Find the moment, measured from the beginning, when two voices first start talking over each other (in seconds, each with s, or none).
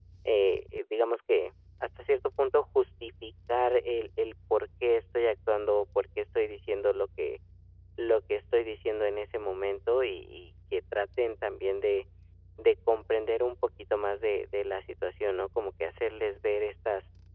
none